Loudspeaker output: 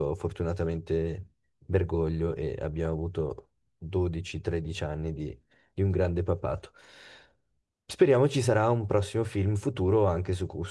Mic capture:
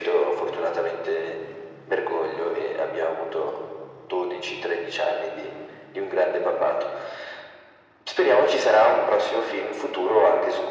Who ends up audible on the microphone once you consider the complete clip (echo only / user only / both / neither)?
echo only